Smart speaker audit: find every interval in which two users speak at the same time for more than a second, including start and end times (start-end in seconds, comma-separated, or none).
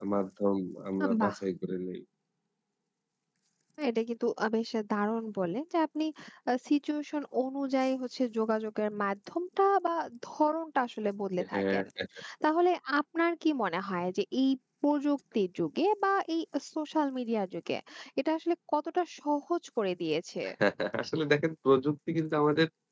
none